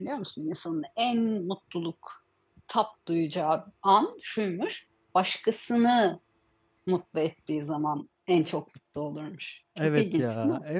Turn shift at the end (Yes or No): Yes